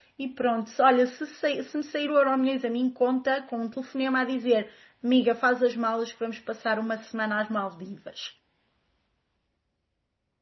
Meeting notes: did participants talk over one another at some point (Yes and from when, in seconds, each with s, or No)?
No